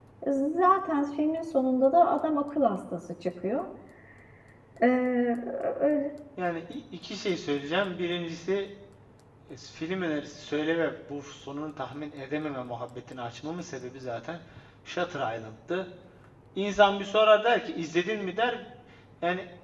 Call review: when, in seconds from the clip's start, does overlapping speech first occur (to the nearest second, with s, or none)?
none